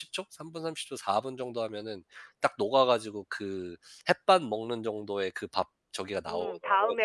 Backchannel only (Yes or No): No